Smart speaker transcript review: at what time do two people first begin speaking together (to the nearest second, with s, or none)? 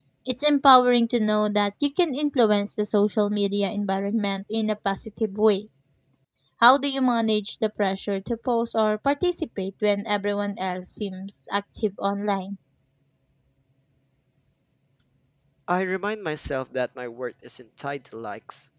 none